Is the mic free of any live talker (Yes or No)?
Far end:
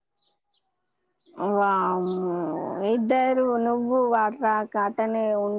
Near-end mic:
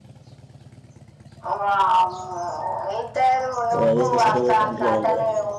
No